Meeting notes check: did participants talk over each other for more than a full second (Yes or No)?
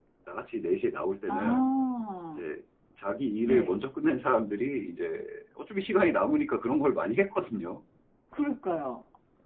No